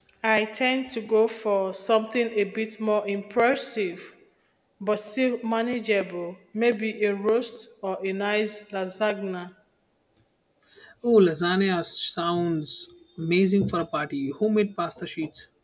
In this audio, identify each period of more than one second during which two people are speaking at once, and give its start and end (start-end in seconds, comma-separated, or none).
none